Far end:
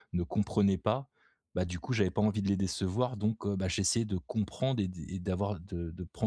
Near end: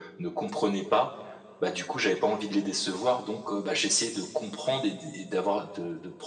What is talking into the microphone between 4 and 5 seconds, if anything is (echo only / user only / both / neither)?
echo only